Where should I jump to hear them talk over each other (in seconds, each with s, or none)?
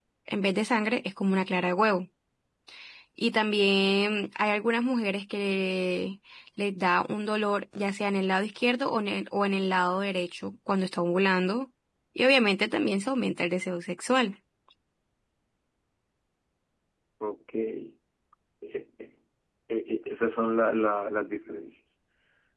none